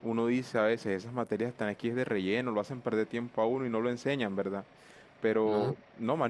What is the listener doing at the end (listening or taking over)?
listening